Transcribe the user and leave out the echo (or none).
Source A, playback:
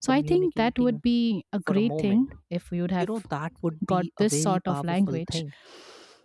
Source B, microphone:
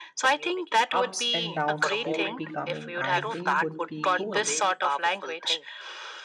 ups and downs they would be coming and they would be going